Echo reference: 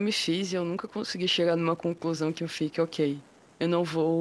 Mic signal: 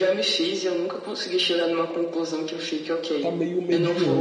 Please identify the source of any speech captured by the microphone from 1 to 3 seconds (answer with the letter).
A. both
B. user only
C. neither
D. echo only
D